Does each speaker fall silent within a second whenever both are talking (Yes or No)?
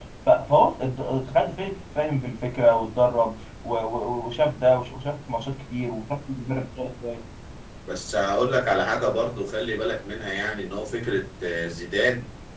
Yes